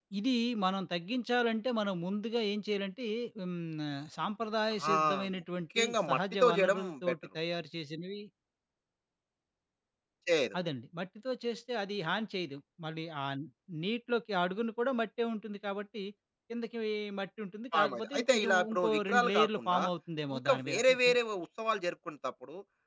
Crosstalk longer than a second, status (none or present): present